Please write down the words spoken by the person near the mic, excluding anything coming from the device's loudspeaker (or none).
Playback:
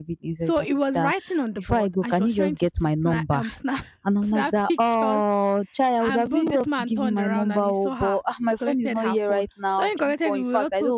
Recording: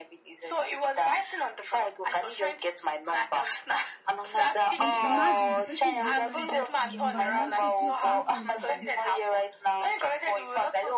and imagine the person did not now get the number. You now say, "Please, can you call it again?"